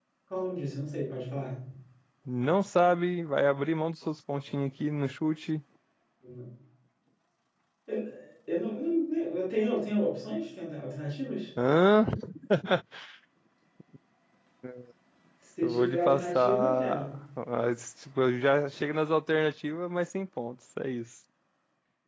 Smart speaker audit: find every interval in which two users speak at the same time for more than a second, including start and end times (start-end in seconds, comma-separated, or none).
15.6-17.1